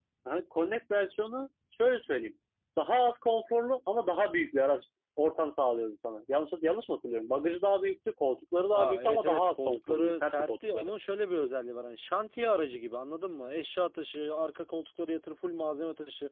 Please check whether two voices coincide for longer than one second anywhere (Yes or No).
Yes